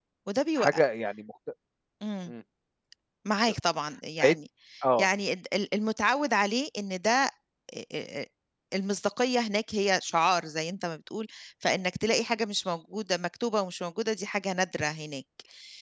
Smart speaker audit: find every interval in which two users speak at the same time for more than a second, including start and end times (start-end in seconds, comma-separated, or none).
none